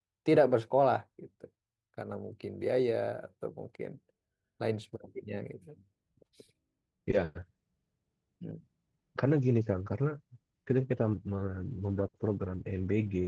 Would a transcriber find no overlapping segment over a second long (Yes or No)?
Yes